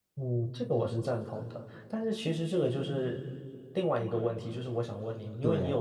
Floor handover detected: No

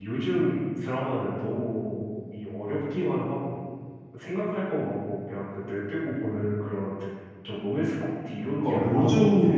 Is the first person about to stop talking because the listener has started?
Yes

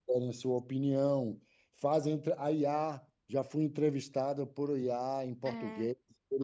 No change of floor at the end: No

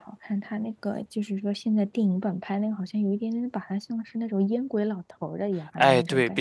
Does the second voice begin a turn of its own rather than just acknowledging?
Yes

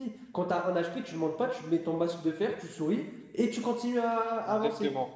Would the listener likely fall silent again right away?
No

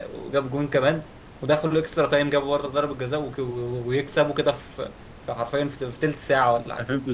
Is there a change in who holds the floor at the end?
Yes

